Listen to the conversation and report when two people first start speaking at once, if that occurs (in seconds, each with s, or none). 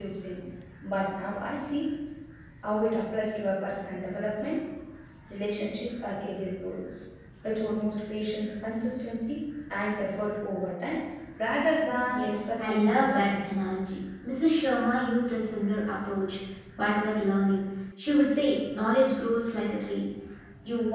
12.1 s